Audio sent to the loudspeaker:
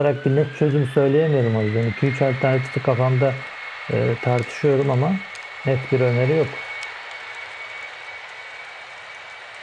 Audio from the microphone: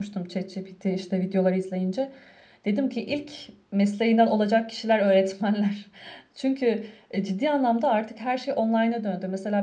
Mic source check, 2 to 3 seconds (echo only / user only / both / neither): user only